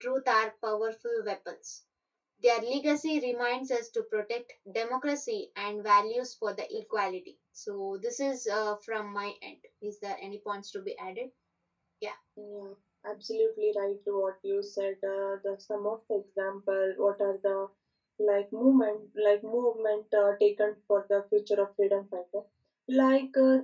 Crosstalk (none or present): none